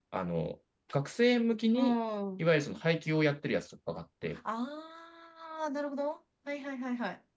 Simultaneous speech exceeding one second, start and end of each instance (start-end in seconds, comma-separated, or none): none